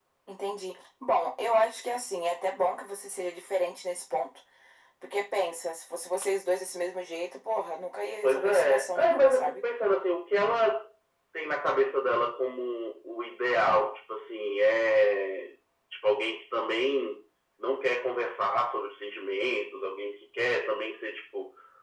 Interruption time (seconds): 8 s

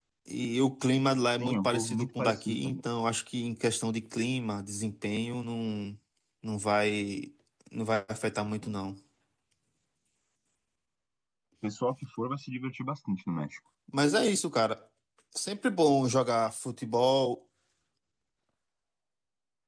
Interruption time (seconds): 1 s

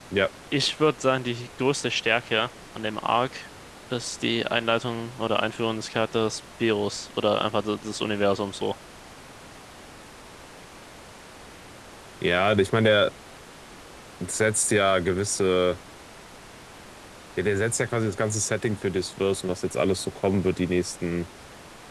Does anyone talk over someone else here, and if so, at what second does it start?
none

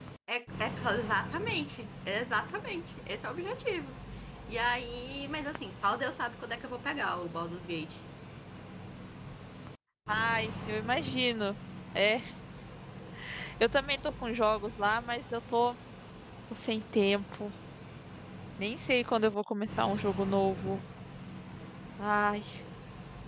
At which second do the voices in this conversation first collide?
none

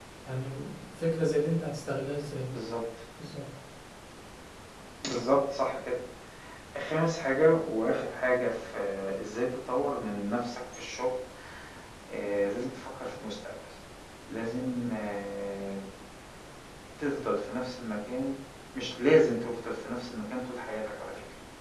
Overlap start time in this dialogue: none

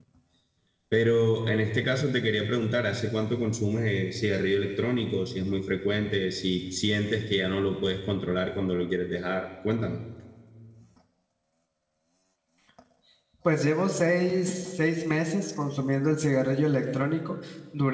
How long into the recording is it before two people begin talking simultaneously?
none

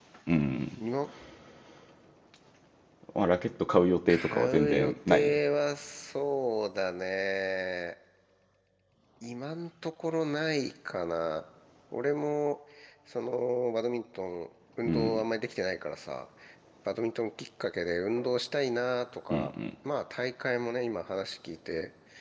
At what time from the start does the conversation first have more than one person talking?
4 s

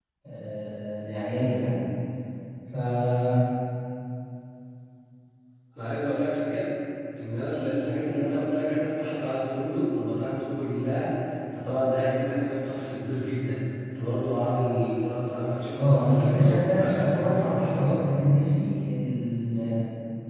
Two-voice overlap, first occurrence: 16 s

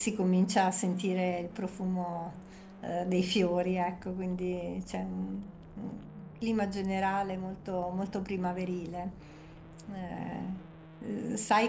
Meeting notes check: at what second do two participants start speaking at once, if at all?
none

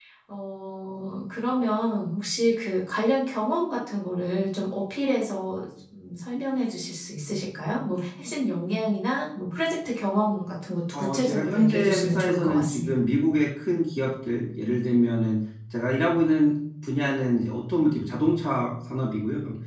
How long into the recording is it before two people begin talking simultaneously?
11 s

